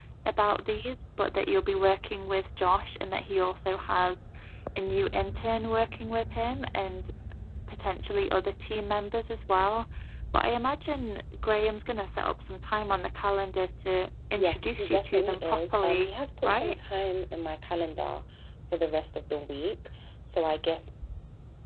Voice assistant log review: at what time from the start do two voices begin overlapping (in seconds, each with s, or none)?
14.3 s